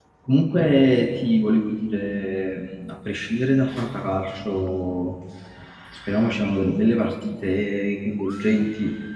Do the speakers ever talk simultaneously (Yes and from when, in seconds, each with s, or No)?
No